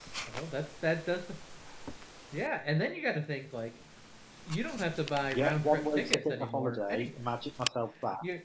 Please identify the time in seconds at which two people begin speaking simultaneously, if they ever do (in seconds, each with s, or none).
5.3 s